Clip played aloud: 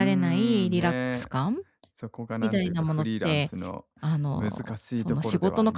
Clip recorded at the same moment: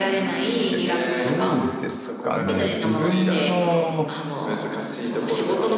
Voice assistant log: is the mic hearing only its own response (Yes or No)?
No